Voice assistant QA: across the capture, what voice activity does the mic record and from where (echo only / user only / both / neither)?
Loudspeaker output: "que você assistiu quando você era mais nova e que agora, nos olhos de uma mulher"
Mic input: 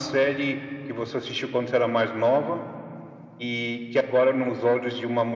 echo only